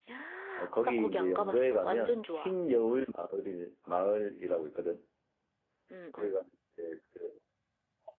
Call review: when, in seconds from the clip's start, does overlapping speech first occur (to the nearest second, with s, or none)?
1 s